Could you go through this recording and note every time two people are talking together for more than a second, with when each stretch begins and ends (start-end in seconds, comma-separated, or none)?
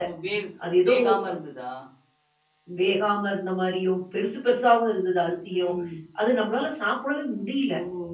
none